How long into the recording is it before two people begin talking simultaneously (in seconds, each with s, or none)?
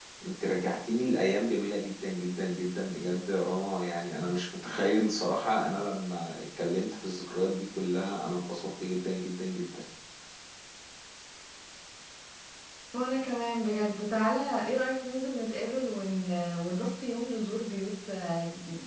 none